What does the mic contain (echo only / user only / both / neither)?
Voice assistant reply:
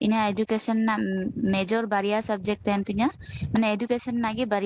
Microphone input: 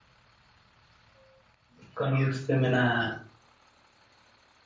user only